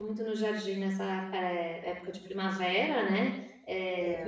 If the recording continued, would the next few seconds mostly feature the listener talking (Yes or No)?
No